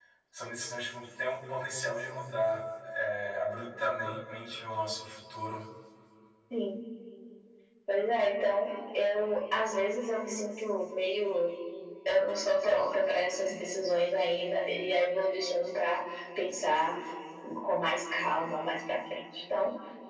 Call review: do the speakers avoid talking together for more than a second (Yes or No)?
Yes